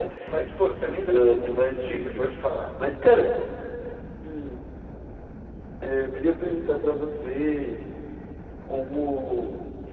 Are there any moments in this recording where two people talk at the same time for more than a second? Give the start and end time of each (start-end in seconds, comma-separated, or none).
0.9-2.2